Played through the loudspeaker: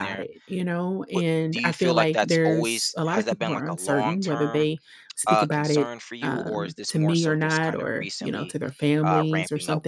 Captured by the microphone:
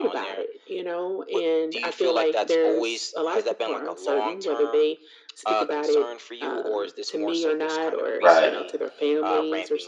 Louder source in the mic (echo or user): user